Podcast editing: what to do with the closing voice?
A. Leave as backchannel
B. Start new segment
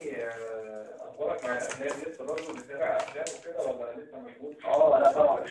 B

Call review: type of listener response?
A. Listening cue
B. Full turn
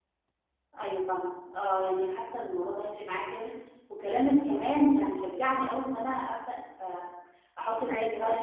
A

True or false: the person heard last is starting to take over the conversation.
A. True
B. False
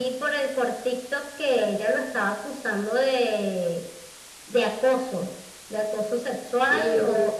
B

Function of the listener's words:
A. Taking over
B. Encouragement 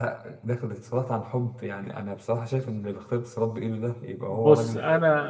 A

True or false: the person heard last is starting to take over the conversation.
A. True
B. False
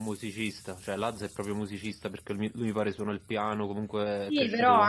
A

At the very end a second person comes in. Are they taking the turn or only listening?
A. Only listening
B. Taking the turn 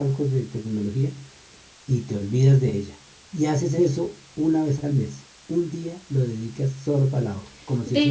B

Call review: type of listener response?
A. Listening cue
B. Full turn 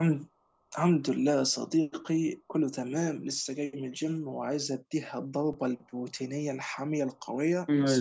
B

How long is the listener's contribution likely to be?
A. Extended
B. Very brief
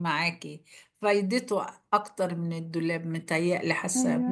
B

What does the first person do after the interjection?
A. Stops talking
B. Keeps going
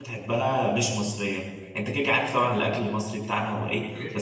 B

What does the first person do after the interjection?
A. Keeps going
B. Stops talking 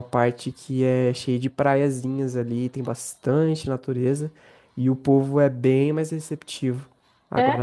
A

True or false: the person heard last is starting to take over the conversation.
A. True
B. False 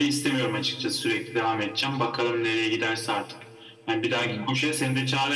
B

